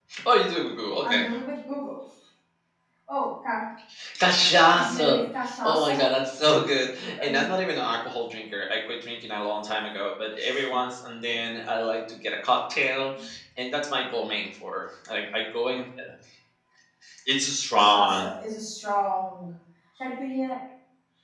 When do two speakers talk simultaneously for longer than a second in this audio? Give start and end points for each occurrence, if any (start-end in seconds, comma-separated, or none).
none